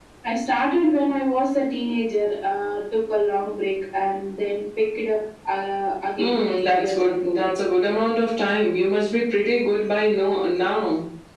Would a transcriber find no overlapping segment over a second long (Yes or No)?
No